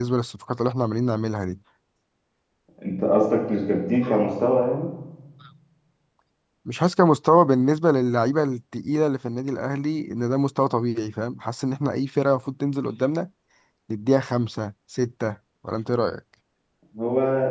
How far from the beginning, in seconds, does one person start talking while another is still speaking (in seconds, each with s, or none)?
none